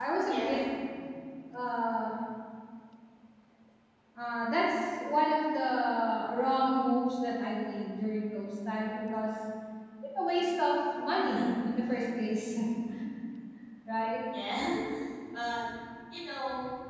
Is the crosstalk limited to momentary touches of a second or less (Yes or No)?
Yes